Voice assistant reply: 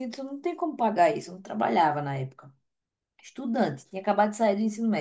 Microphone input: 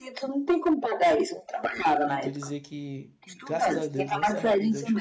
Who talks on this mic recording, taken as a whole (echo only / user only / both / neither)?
both